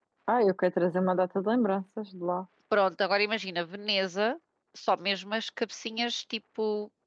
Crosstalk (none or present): none